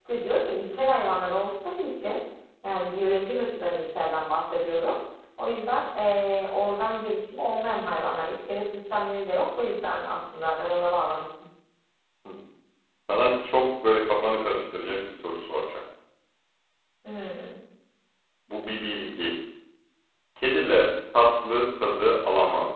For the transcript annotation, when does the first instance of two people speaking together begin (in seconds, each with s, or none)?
none